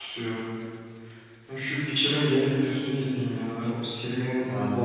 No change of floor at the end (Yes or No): No